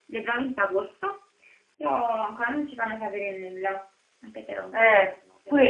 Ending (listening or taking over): taking over